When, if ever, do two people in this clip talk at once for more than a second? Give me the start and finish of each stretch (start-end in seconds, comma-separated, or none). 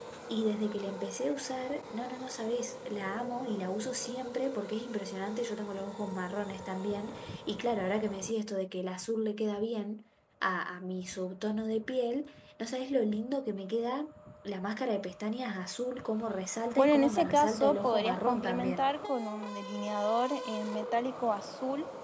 16.8-18.9